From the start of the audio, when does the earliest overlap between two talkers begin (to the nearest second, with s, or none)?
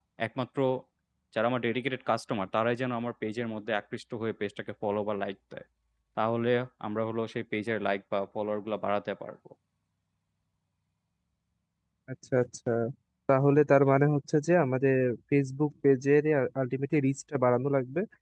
none